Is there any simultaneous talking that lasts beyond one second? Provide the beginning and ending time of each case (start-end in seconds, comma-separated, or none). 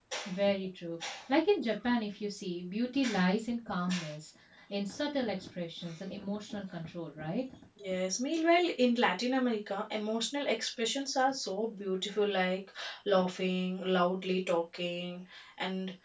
none